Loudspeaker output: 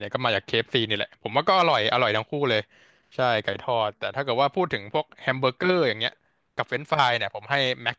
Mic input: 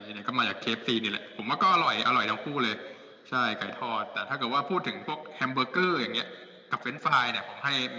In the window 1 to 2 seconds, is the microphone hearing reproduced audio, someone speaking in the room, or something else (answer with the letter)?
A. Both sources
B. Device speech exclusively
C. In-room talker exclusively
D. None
B